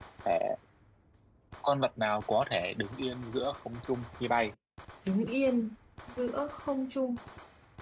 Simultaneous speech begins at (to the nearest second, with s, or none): none